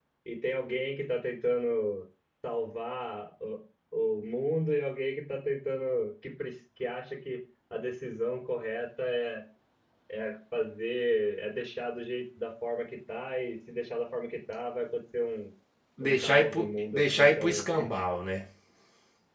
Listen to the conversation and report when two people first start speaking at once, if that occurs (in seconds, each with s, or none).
16.0 s